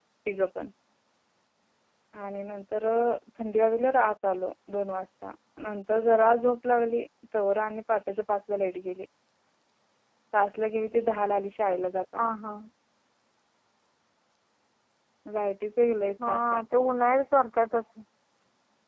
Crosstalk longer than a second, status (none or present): none